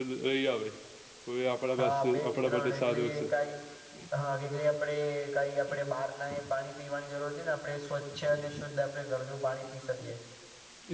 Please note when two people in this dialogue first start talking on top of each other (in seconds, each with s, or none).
1.8 s